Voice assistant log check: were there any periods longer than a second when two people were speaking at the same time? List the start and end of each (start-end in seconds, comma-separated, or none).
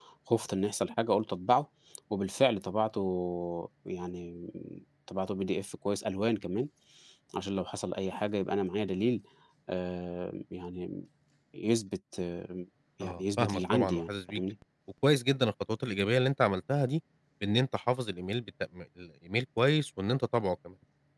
13.0-14.4